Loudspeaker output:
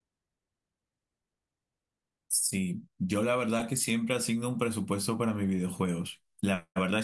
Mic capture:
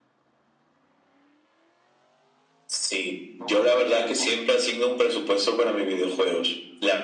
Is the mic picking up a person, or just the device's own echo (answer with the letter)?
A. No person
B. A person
B